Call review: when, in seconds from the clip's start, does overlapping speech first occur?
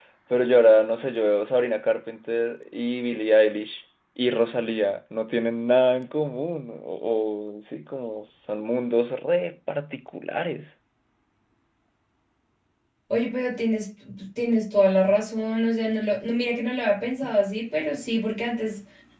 none

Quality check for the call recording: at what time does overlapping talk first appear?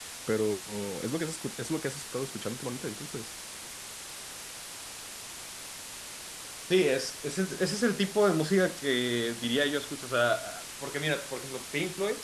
none

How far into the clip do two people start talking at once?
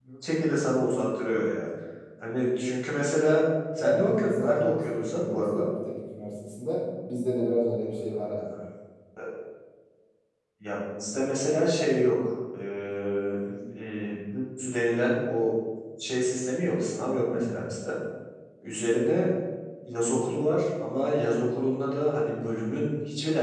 4 s

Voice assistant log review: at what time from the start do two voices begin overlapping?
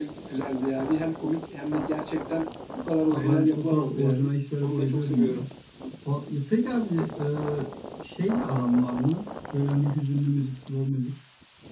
3 s

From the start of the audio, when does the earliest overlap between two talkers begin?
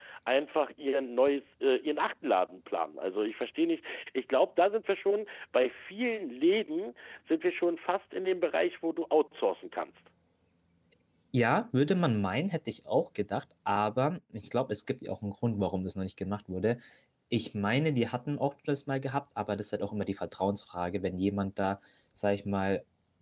none

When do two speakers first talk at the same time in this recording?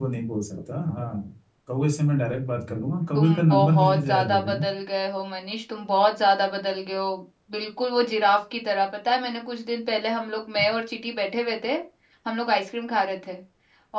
3 s

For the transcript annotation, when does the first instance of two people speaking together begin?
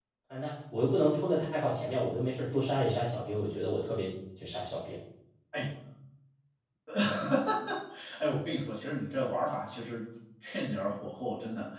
none

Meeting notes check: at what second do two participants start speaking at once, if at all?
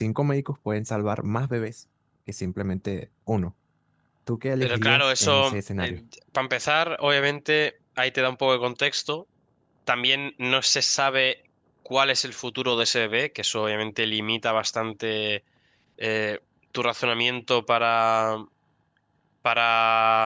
5 s

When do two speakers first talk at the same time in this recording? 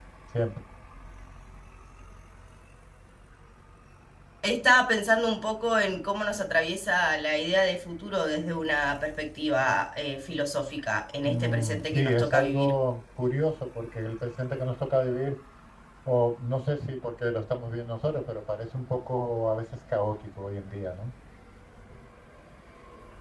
11 s

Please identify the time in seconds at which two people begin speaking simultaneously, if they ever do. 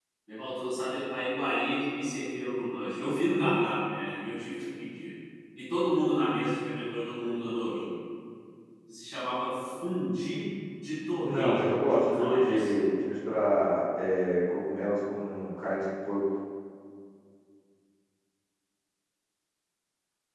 11 s

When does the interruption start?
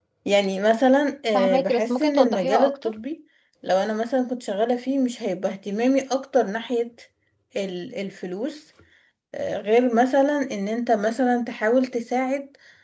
1 s

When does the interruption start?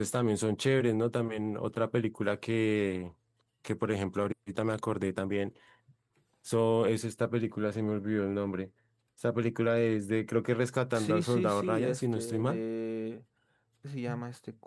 11 s

